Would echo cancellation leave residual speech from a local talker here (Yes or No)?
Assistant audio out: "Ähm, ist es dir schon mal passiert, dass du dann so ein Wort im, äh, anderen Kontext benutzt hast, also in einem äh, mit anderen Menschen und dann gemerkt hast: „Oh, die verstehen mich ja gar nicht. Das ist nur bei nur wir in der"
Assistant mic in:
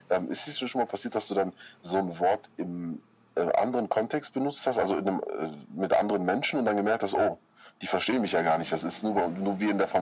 No